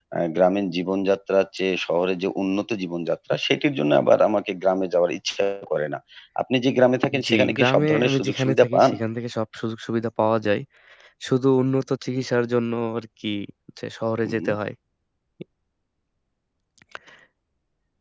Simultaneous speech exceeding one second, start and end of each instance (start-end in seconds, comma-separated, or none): 7.2-8.9